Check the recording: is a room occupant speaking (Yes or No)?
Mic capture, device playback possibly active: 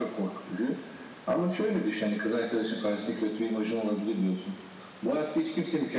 No